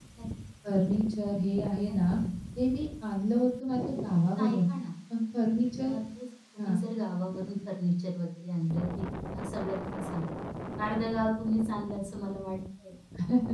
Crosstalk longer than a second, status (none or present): none